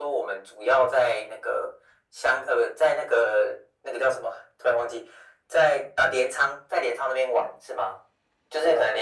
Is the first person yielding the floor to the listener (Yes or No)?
No